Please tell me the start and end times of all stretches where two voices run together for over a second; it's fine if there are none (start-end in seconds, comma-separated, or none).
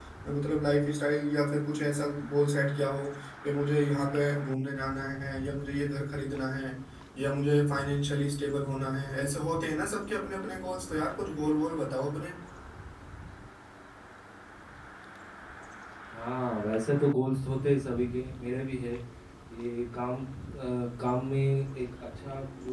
none